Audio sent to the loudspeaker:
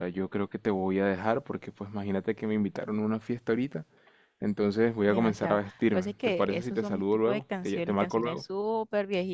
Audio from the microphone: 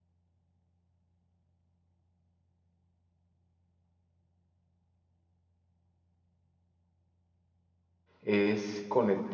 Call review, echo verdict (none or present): none